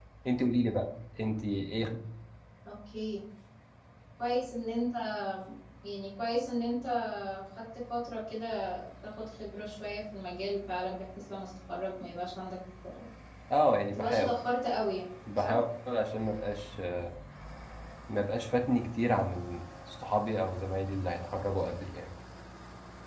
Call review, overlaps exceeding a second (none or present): none